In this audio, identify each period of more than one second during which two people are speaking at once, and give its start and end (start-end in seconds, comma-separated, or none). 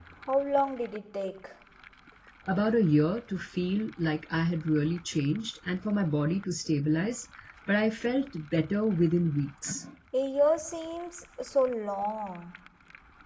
none